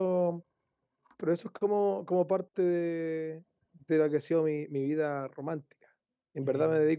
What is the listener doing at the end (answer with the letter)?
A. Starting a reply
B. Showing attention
B